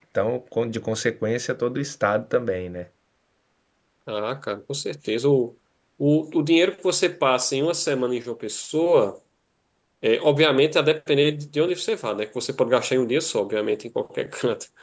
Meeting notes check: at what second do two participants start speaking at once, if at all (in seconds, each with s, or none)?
none